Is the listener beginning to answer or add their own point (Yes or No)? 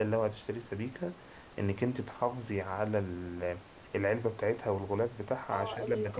Yes